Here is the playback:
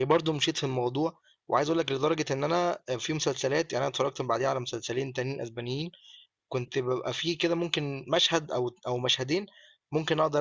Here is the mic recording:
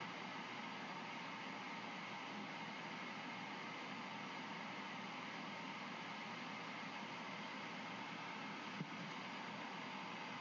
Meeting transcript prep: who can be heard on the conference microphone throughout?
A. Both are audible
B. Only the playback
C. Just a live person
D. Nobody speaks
D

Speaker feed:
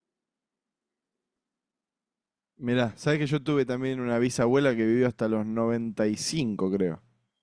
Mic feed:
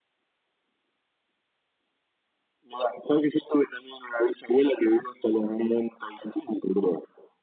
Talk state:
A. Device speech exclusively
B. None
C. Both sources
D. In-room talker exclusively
A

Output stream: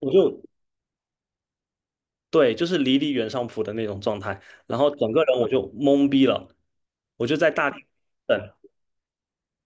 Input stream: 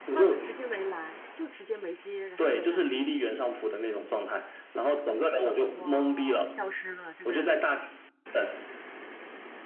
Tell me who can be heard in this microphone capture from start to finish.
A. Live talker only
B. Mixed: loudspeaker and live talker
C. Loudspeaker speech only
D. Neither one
B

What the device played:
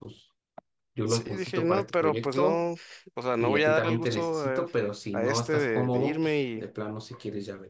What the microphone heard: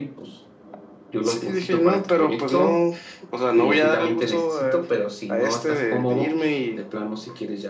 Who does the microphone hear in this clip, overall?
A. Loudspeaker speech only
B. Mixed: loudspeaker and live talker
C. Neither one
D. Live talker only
A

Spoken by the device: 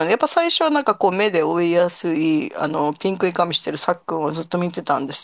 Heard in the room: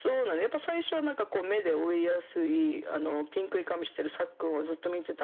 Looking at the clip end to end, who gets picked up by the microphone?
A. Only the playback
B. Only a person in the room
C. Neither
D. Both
A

